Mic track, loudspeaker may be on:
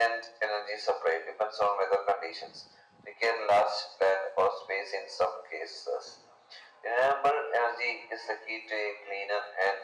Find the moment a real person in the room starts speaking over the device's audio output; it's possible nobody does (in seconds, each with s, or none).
none